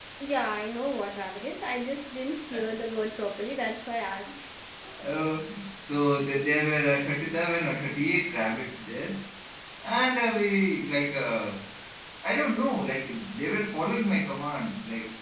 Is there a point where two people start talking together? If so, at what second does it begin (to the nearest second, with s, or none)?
none